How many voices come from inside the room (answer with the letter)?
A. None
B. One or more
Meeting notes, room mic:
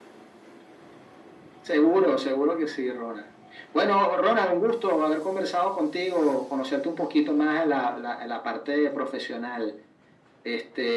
A